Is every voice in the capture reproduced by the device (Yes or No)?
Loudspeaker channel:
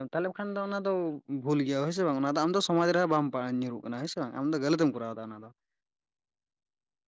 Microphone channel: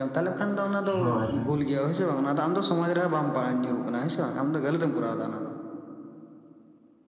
No